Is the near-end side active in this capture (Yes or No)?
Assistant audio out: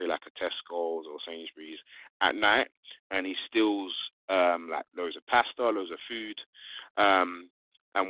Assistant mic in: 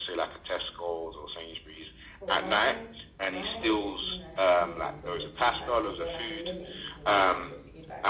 Yes